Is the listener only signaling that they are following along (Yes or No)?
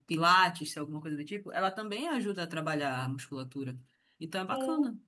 No